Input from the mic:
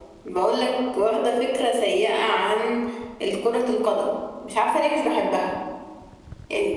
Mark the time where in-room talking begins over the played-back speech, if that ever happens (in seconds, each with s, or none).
none